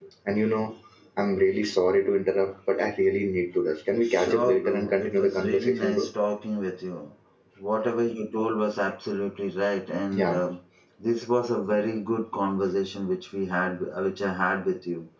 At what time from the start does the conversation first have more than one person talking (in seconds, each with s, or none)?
4.0 s